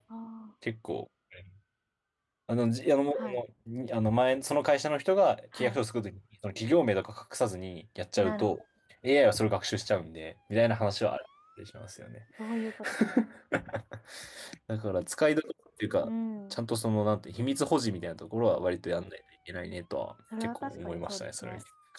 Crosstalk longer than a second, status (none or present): present